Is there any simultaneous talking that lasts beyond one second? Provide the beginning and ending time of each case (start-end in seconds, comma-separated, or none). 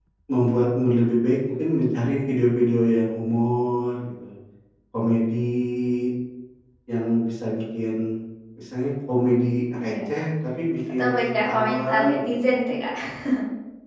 11.0-12.3